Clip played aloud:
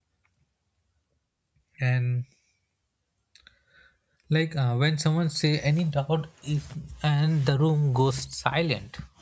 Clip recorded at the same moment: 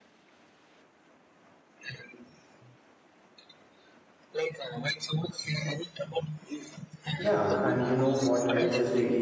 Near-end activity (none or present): present